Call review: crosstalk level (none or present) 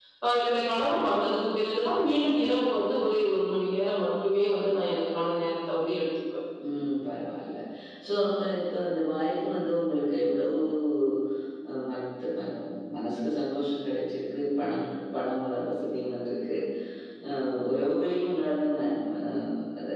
none